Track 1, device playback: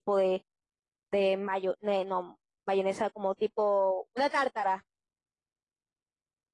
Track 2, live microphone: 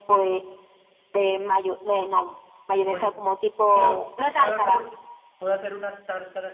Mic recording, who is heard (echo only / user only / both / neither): both